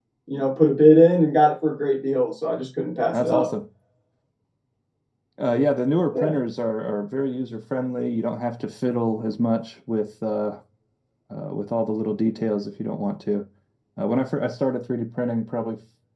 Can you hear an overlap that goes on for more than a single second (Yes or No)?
No